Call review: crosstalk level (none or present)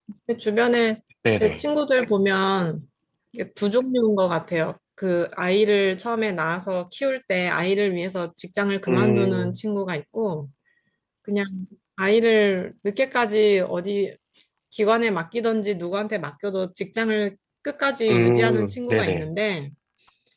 present